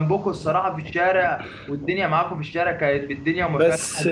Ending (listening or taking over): listening